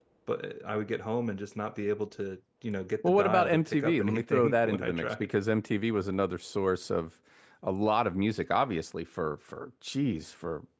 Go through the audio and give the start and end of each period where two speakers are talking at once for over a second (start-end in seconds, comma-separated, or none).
3.0-5.3